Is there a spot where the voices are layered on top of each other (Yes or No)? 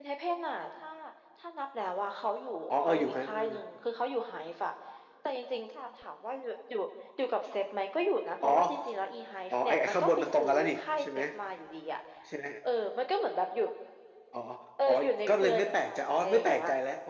Yes